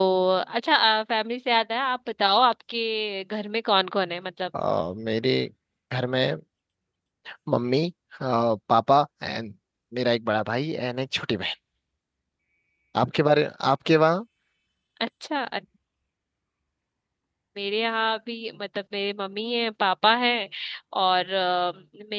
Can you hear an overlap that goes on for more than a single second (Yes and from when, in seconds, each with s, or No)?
No